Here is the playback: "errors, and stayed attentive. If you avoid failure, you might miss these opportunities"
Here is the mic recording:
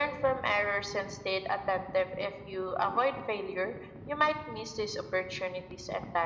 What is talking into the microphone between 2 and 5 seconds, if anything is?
echo only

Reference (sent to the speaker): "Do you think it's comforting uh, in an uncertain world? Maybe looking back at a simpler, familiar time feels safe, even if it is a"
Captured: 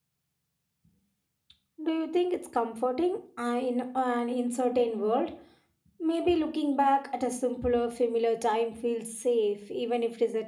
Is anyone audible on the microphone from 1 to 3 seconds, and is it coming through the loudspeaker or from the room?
echo only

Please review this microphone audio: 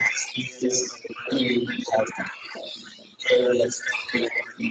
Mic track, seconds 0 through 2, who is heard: echo only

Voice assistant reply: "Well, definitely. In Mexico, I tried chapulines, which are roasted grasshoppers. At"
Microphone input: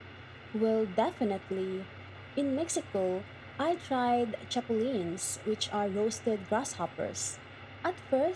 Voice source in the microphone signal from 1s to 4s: echo only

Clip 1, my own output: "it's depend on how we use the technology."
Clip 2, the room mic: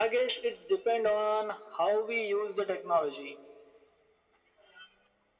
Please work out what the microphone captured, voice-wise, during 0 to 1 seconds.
echo only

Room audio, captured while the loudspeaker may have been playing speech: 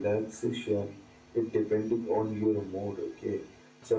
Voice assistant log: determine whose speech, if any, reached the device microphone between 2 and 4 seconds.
echo only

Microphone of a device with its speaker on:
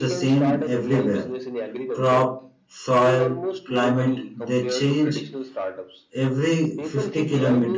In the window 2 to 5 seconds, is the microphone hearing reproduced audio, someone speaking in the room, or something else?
both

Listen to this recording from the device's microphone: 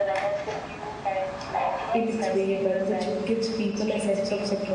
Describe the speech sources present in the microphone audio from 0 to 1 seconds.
echo only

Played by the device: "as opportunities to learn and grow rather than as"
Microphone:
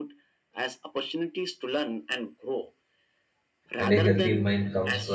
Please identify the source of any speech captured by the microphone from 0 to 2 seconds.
echo only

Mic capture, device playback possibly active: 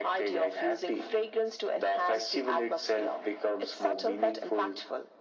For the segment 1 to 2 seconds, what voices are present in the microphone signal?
echo only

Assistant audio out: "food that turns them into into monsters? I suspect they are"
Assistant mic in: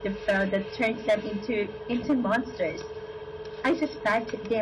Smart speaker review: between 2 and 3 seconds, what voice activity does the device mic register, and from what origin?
echo only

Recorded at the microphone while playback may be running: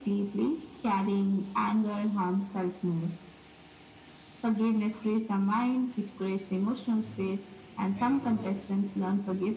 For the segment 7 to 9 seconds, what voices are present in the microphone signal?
both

